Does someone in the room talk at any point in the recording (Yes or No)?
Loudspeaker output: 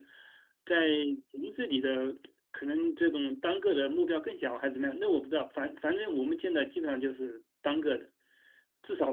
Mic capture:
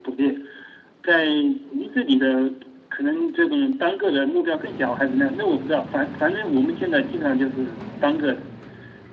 No